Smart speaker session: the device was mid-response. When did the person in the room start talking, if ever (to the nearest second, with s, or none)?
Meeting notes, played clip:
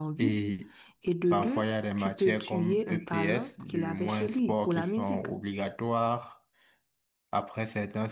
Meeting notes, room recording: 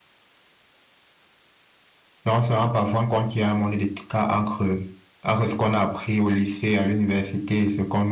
2 s